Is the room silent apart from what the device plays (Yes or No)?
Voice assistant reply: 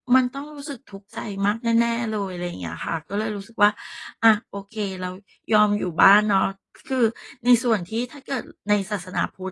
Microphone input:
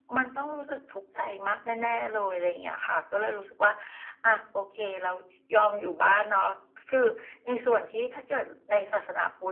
Yes